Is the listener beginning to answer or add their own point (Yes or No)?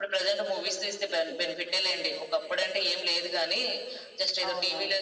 No